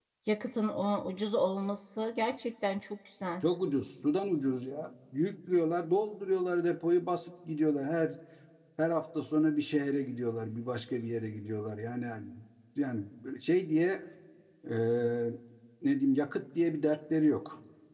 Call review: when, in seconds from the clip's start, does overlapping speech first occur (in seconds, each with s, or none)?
none